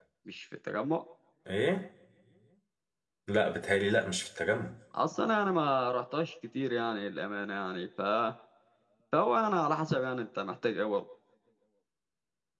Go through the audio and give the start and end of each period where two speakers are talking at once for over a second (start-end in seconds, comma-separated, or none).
none